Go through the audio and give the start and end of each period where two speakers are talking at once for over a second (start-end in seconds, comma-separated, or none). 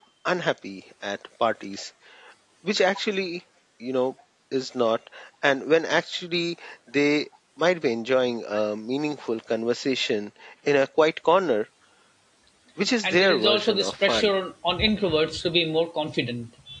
13.0-14.3